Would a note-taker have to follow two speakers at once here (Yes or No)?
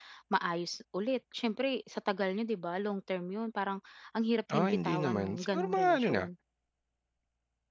Yes